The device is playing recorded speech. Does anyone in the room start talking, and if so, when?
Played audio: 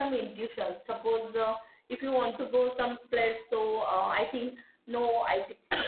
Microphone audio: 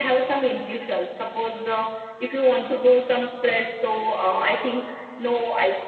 none

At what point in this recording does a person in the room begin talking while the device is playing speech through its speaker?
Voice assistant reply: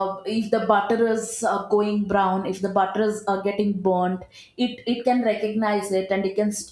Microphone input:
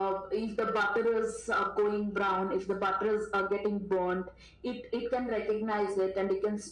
none

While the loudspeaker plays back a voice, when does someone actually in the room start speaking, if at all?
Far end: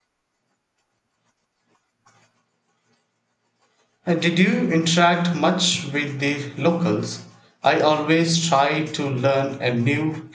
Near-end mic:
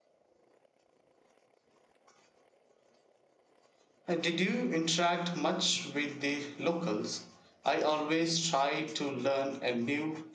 none

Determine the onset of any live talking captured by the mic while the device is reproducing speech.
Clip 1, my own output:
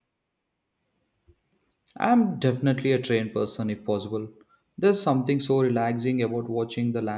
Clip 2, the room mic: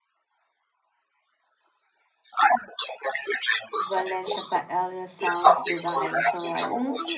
3.8 s

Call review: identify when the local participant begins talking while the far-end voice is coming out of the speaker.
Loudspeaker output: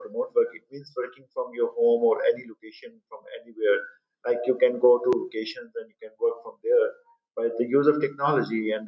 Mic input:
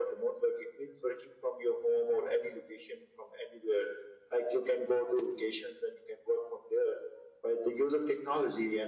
none

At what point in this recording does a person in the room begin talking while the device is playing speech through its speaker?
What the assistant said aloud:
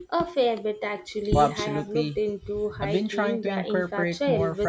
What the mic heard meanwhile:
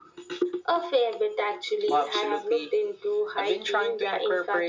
none

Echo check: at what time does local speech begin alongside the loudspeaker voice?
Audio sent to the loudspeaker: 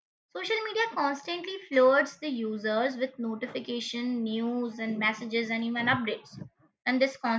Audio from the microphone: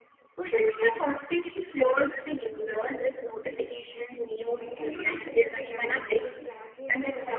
4.6 s

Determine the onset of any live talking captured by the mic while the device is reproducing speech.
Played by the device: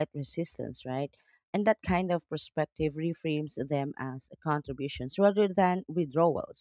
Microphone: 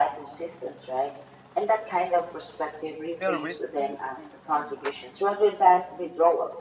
3.2 s

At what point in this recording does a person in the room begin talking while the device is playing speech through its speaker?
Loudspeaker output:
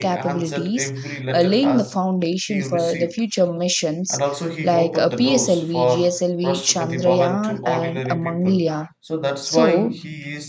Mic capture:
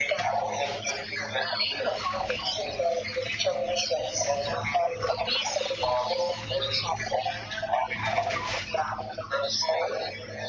none

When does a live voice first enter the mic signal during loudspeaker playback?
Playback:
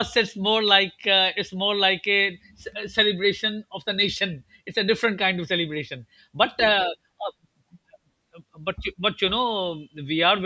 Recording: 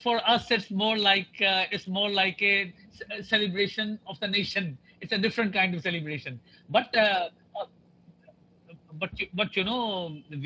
none

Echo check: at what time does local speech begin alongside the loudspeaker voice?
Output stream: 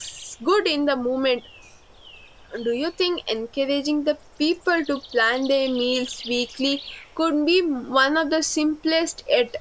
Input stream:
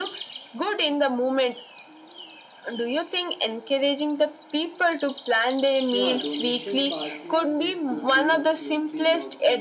5.9 s

